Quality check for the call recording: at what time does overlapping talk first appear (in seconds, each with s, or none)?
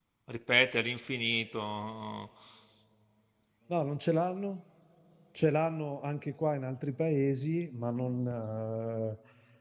none